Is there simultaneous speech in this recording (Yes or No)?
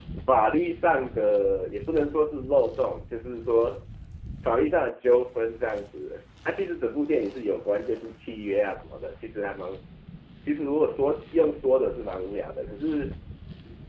No